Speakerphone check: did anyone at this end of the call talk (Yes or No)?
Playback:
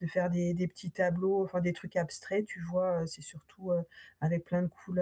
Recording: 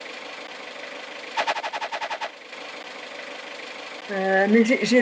Yes